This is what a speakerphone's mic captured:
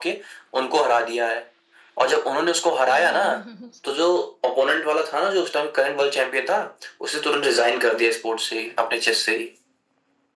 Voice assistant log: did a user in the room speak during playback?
Yes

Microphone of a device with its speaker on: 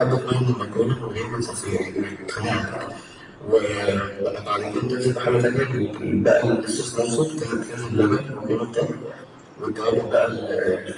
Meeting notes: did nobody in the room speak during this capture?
Yes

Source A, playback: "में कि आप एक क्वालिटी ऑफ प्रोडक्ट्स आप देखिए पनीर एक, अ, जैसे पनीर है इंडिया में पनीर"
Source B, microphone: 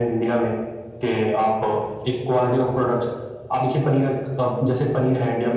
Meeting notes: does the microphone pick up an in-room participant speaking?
No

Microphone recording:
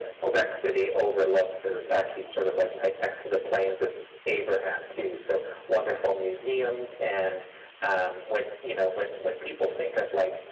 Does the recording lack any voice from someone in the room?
Yes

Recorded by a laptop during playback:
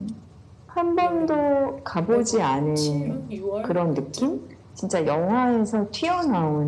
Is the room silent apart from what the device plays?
No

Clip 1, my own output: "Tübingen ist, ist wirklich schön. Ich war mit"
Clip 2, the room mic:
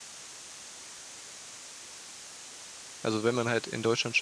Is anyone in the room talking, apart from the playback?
Yes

